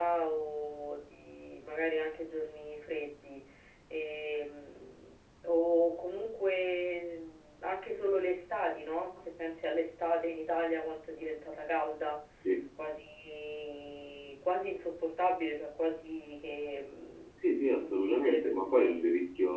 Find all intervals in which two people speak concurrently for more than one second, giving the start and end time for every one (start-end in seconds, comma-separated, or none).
17.8-19.0